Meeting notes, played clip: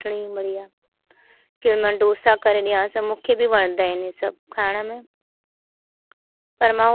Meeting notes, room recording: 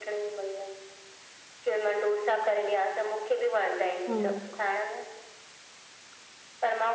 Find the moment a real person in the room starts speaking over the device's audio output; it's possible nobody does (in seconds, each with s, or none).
4.1 s